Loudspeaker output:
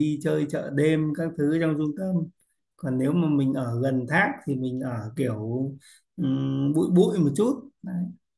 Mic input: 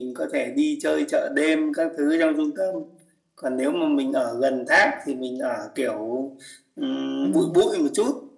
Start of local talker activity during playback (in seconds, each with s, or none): 7.2 s